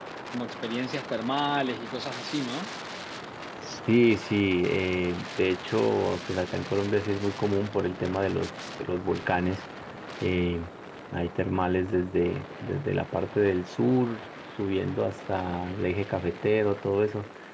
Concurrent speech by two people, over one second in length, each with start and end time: none

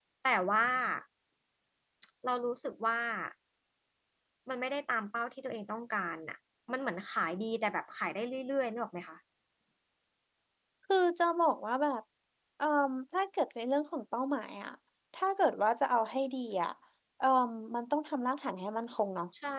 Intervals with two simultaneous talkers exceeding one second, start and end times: none

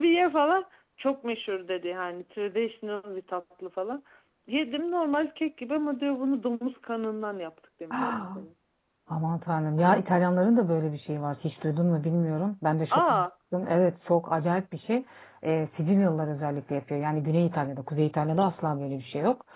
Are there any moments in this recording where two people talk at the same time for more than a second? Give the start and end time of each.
none

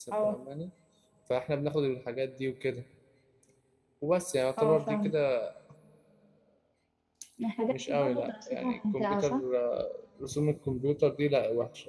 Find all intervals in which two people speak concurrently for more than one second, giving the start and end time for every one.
7.7-9.4

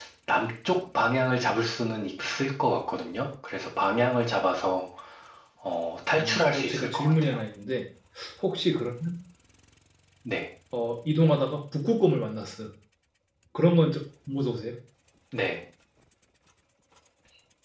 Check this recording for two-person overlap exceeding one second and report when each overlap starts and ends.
6.2-7.4

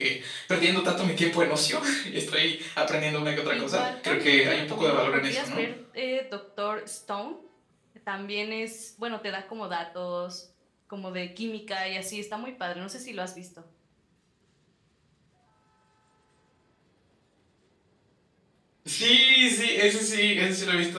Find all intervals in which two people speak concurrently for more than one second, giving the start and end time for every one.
3.5-5.6

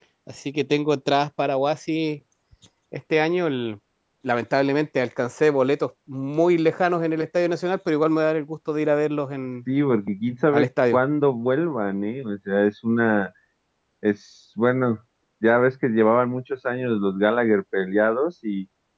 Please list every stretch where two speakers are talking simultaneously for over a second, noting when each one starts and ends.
none

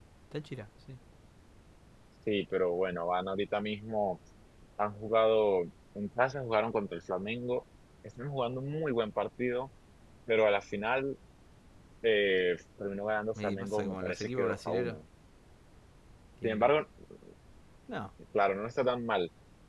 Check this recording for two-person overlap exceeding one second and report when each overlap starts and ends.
13.4-15.0

